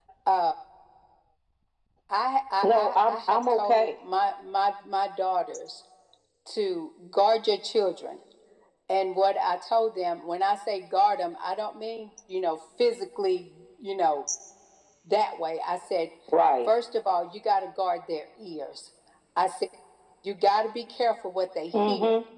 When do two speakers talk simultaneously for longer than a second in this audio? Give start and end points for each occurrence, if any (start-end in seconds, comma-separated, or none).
2.6-3.9